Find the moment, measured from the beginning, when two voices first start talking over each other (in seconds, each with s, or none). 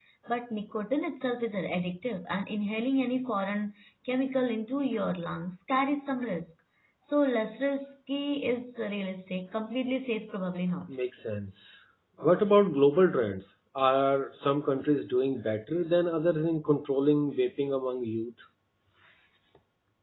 none